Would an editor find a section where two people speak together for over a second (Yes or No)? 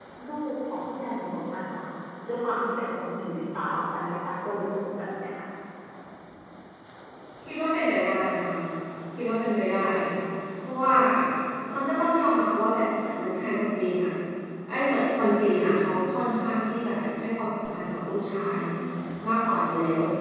No